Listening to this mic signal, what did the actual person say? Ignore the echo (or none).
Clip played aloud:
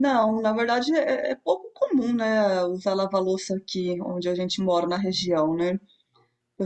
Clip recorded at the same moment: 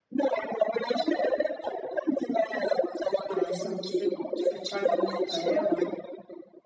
ah, então você, você faz almoço para ela?